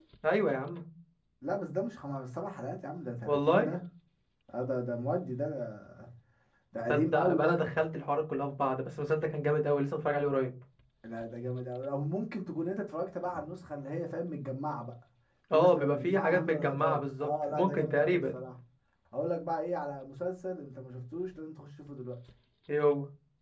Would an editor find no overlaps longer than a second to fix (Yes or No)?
No